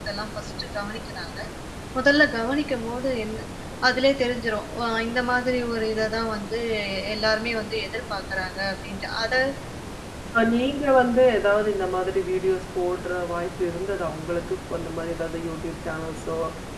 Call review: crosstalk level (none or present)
none